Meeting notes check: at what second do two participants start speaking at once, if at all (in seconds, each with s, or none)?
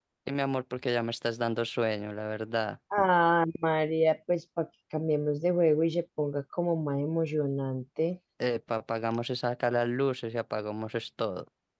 none